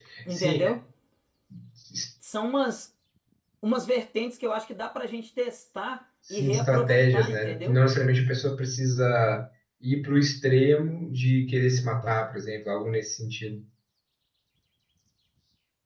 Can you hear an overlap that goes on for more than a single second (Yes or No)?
Yes